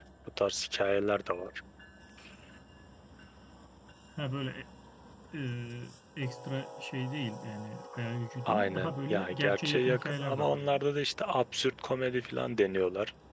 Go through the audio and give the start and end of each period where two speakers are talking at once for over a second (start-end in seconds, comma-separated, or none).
8.5-10.6